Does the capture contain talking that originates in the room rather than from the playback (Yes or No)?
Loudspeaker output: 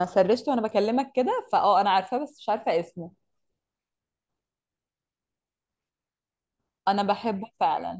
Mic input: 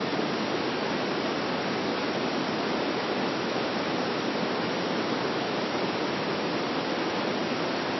No